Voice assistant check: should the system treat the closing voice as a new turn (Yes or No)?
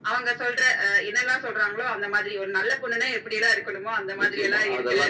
Yes